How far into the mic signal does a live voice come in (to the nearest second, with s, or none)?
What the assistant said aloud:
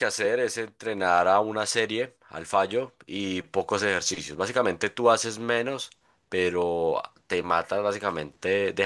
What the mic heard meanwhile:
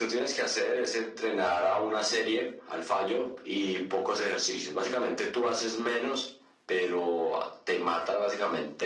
none